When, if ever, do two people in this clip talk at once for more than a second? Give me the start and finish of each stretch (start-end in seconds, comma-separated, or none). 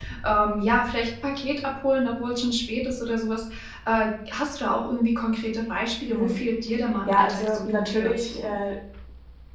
7.1-8.6